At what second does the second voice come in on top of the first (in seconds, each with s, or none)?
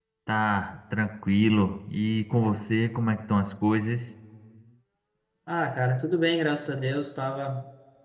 none